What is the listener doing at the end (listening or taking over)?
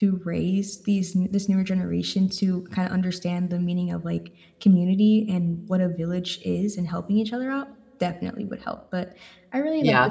taking over